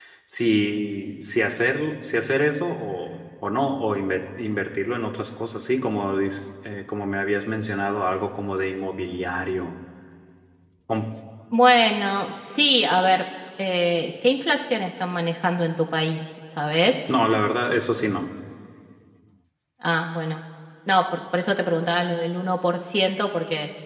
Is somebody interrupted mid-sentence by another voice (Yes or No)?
No